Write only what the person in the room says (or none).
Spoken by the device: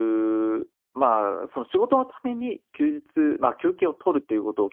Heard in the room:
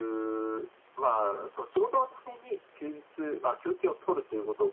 none